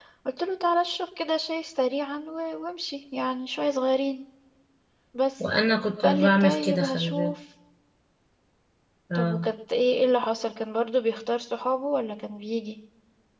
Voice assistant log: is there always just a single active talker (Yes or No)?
No